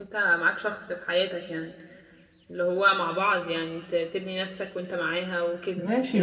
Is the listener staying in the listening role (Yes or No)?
No